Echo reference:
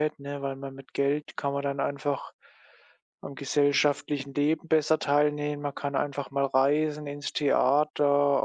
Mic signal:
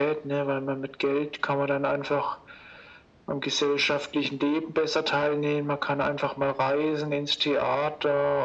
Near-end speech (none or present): none